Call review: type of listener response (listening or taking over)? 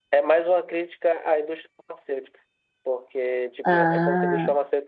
listening